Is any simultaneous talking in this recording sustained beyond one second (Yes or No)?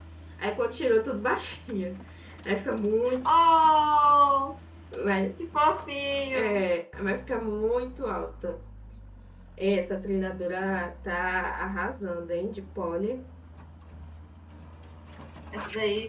No